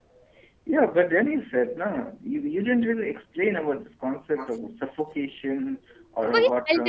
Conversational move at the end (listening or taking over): taking over